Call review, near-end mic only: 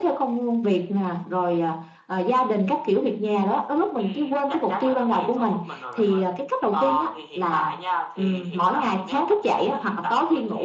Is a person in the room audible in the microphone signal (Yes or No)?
No